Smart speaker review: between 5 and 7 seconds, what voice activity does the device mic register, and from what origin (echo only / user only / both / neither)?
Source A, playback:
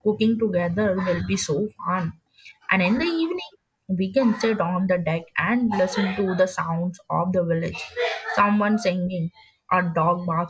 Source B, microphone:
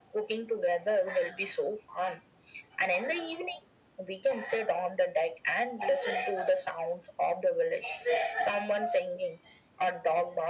echo only